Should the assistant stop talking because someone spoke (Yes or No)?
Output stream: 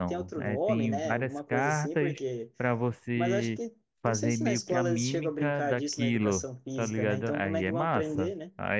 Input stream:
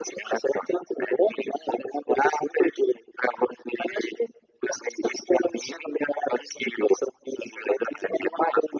No